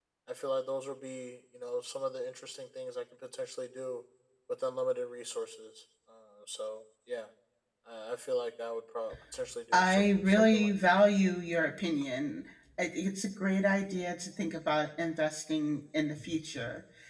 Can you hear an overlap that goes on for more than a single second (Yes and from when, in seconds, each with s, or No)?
Yes, from 9.7 s